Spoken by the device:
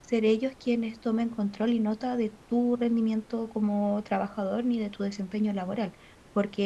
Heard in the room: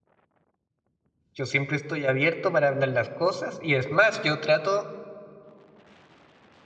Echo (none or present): none